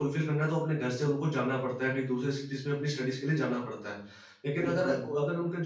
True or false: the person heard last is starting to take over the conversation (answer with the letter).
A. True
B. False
B